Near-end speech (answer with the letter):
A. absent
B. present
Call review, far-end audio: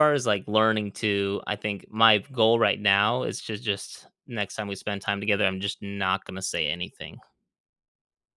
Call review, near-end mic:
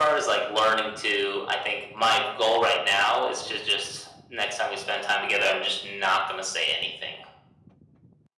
A